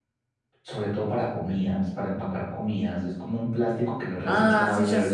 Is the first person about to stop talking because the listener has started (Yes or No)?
Yes